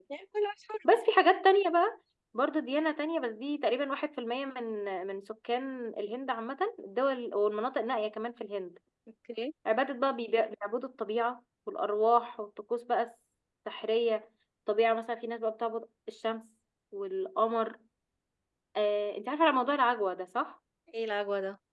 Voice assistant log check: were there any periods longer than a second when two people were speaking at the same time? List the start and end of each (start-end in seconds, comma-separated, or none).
none